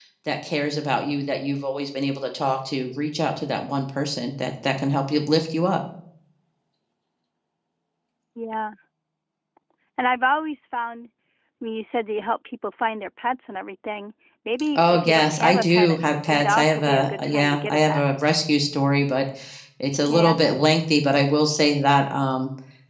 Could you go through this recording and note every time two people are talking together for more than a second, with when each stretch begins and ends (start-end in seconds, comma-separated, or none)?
14.8-18.0